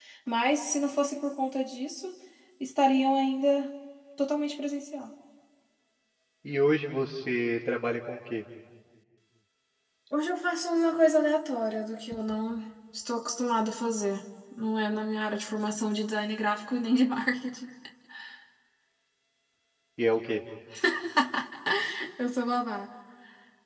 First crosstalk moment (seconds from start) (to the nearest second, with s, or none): none